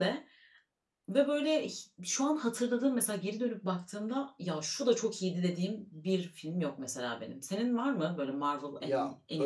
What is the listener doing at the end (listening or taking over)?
taking over